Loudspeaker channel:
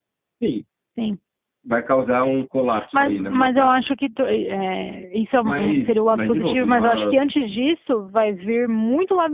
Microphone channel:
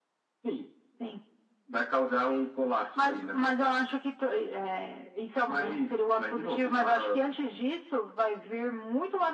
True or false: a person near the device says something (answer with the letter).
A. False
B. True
A